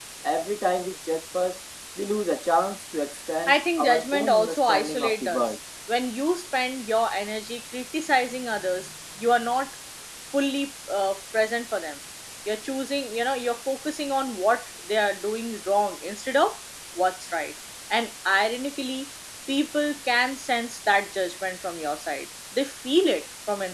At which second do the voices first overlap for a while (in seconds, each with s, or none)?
3.5 s